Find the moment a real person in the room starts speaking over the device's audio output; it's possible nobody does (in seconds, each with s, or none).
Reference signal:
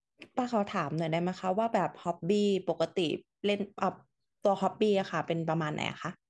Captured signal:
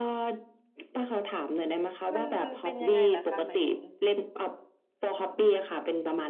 2.1 s